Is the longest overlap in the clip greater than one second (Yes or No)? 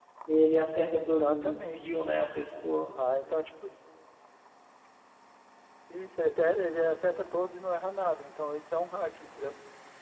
Yes